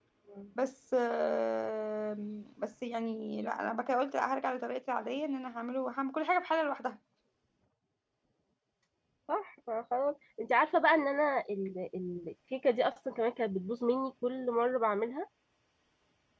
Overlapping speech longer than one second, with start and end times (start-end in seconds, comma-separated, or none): none